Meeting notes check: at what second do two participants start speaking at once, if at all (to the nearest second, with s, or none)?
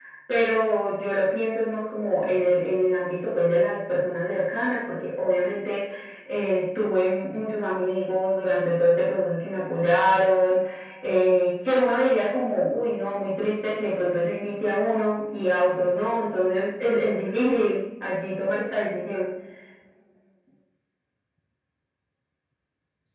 none